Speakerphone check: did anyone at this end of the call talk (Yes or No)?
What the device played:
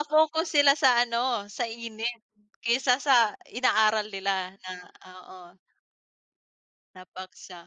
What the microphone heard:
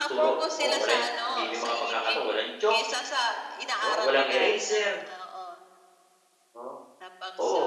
Yes